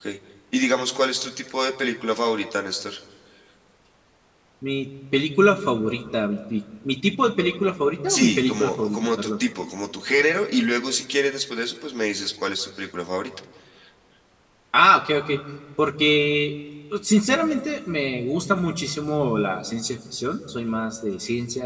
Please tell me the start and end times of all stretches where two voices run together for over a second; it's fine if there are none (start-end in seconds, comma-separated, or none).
8.1-9.3